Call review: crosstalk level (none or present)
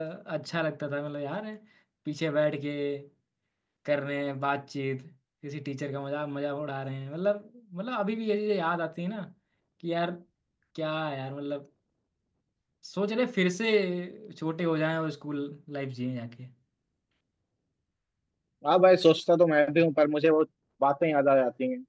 none